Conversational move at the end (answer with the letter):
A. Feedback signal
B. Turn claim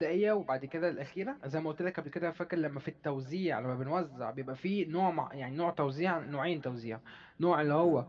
A